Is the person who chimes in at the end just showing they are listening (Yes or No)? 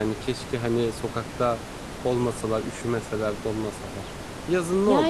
No